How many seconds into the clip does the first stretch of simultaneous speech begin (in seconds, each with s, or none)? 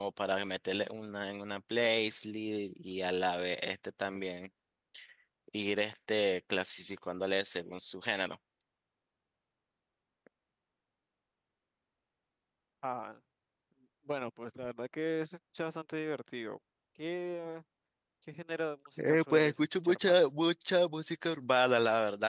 19.0 s